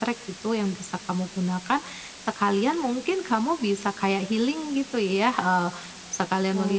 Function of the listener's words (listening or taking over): listening